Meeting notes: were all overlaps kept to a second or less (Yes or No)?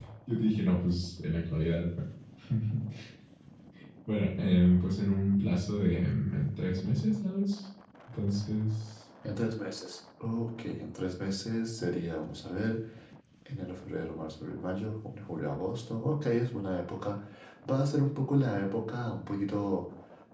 Yes